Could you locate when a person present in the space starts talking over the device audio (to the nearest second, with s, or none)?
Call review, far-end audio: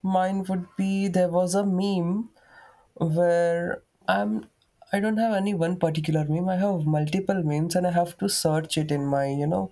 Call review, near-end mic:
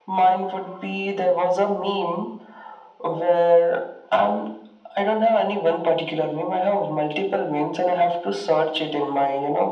none